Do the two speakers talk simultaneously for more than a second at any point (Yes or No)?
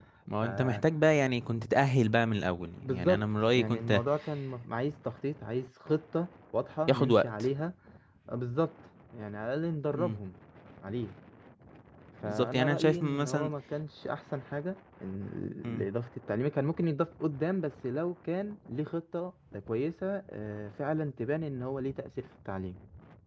Yes